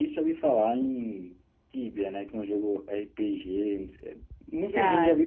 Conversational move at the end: listening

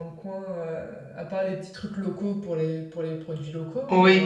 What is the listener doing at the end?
taking over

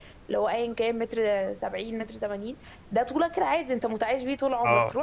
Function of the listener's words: listening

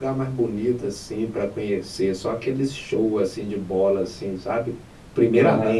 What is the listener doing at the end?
listening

